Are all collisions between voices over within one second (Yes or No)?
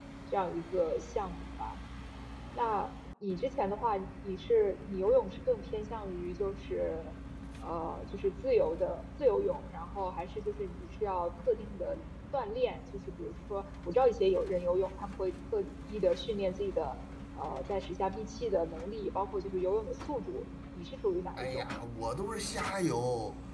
Yes